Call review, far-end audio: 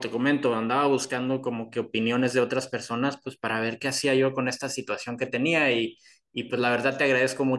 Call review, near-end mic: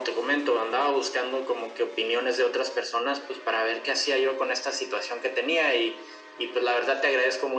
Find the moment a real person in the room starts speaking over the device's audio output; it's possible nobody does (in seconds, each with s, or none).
none